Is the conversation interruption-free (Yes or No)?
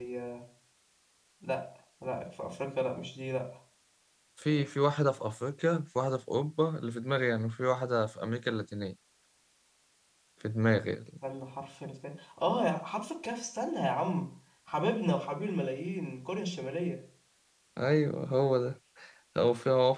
Yes